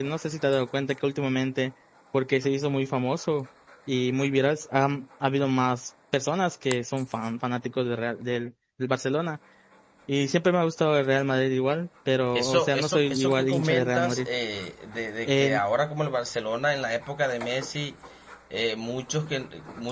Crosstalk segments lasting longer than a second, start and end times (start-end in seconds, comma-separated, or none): 12.3-14.3